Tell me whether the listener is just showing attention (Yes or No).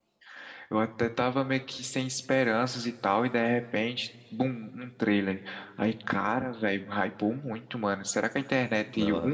Yes